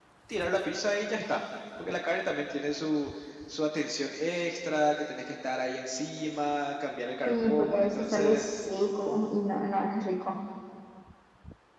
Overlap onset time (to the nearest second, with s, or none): 7 s